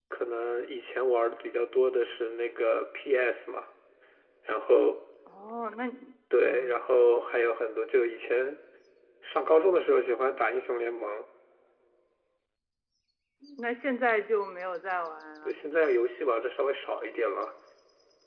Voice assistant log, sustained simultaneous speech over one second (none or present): none